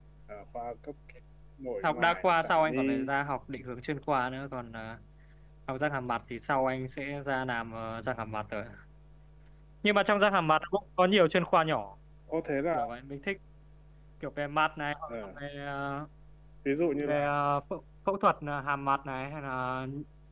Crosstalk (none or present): present